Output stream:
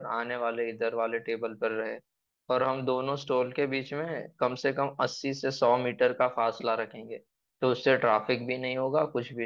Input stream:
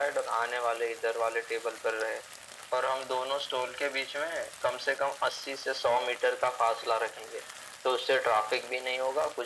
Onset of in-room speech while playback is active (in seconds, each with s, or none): none